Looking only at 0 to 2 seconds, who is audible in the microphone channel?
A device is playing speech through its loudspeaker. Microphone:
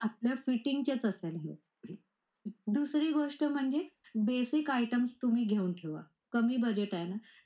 echo only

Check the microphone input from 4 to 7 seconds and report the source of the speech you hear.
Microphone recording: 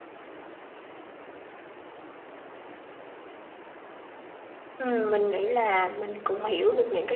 user only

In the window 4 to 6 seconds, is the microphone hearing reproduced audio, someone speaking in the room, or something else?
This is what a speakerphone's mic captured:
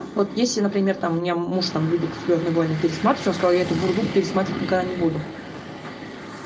echo only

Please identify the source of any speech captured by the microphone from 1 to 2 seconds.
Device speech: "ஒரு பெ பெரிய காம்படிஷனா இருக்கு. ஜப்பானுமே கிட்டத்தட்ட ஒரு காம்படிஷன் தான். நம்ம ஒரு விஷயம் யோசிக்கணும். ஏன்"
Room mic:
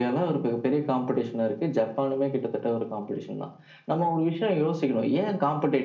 echo only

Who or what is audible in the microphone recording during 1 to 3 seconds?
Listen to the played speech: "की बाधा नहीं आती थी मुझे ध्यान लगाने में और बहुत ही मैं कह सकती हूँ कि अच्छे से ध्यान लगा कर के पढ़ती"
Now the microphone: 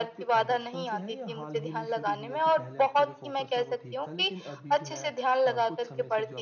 both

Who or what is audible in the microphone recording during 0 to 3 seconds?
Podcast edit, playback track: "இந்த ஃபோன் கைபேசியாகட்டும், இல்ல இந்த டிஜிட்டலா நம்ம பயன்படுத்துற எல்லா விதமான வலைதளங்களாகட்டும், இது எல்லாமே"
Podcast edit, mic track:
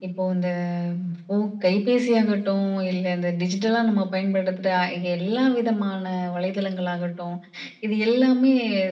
echo only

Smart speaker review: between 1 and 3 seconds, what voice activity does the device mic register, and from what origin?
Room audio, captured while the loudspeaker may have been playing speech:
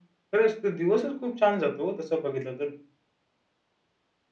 echo only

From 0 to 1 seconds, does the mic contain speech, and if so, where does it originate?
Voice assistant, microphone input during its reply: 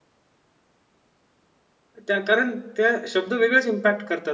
neither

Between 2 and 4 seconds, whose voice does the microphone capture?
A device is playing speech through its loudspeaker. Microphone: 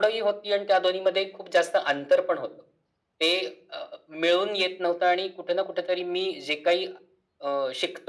echo only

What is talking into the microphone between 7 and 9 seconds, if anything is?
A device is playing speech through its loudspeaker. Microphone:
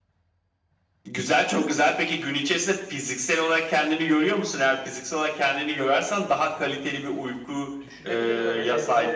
both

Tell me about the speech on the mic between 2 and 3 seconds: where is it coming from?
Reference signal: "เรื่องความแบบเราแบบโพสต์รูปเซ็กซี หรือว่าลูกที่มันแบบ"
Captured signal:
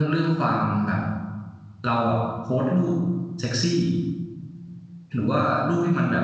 echo only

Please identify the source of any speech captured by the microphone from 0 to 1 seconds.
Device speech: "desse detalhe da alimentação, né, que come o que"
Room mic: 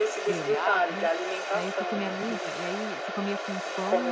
both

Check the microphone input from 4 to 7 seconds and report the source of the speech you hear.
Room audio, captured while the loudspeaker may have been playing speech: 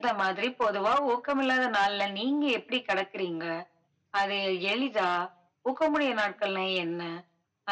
echo only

